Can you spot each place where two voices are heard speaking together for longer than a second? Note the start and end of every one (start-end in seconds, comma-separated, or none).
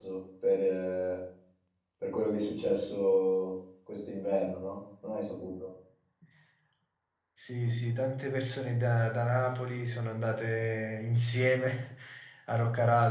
none